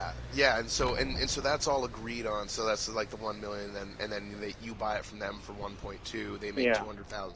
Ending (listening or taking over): listening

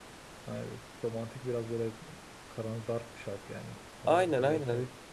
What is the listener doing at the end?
taking over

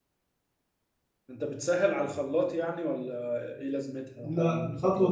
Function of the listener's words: taking over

